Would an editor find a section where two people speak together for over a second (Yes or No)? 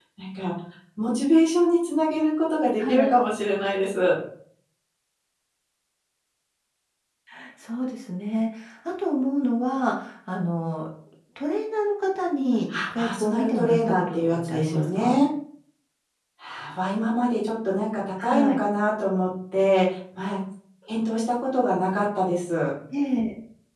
Yes